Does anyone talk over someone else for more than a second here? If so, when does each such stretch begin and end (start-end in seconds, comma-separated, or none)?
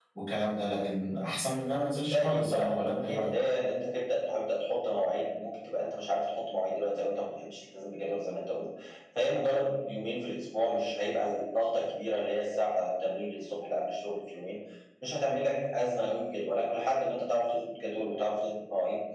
2.0-3.3